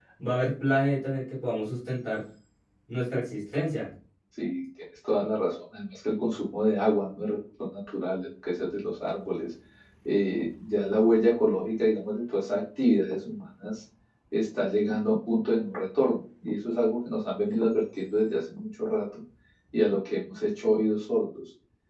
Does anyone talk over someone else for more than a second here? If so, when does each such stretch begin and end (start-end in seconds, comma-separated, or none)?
none